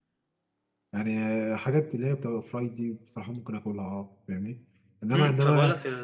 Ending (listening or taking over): taking over